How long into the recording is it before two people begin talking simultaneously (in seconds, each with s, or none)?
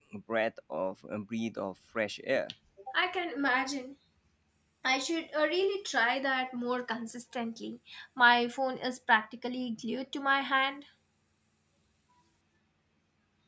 none